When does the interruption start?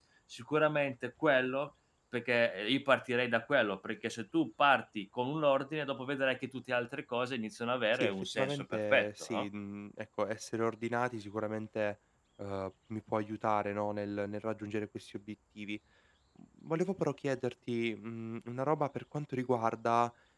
7.9 s

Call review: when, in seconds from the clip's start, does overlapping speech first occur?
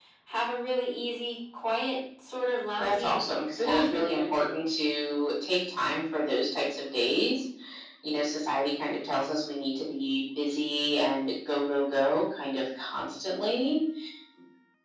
2.8 s

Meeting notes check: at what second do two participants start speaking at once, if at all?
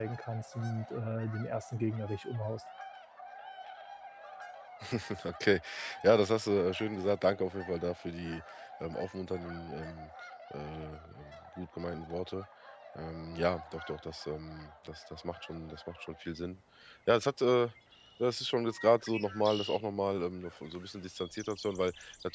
none

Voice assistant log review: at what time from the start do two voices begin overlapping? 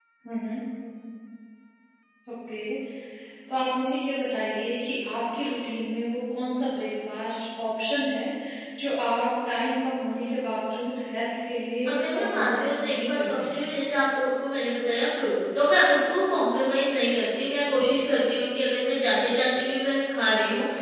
11.8 s

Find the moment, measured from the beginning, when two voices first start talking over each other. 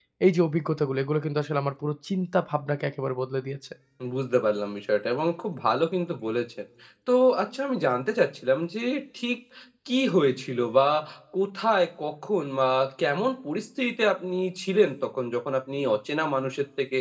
none

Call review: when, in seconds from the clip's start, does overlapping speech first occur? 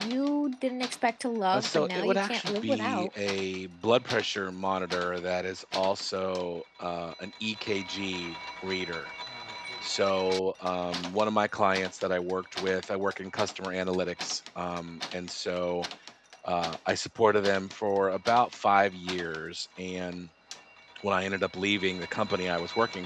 1.5 s

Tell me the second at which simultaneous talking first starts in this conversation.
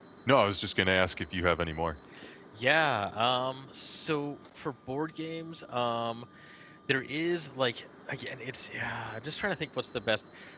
none

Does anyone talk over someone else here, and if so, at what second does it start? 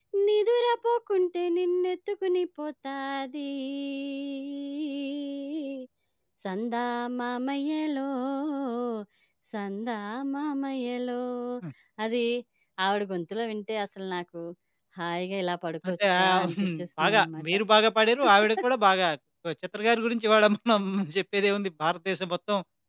15.9 s

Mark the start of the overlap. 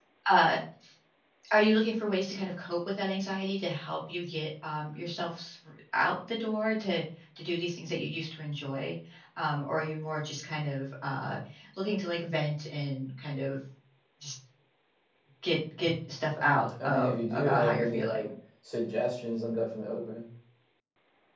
16.8 s

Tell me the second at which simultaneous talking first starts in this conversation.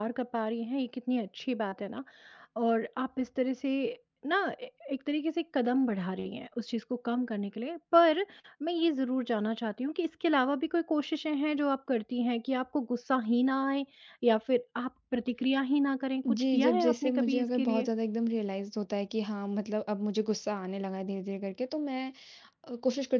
16.2 s

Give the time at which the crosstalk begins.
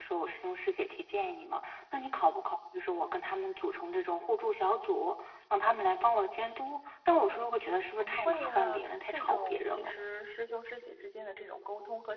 8.0 s

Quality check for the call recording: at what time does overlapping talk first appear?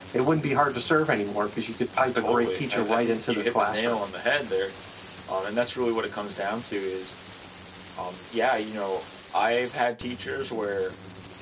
2.0 s

